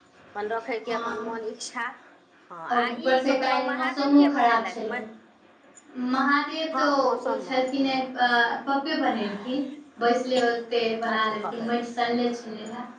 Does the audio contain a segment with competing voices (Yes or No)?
Yes